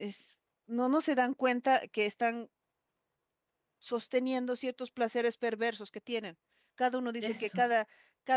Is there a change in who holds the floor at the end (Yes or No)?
No